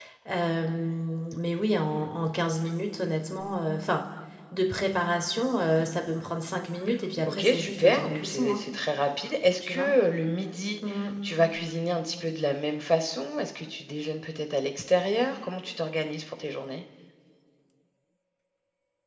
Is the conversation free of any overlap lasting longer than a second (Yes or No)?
No